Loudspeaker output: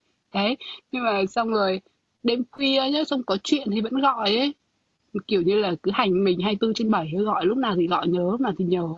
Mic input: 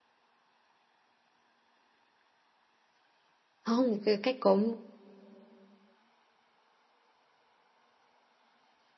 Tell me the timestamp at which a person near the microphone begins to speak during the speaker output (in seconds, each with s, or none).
3.6 s